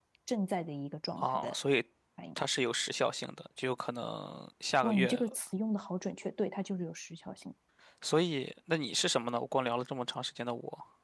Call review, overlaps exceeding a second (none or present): none